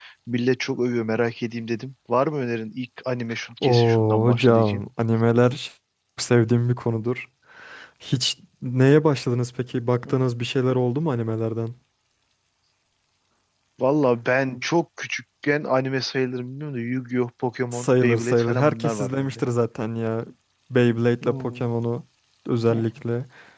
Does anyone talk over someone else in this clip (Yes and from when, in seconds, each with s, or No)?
Yes, from 3.6 s